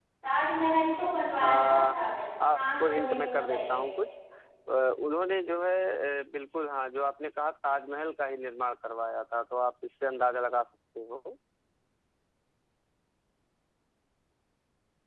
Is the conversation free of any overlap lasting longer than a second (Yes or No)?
No